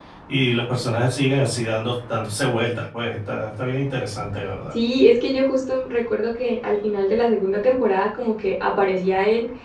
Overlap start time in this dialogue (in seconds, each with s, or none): none